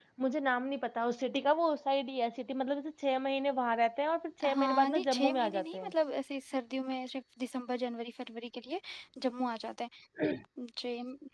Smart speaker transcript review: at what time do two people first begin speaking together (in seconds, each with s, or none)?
4.4 s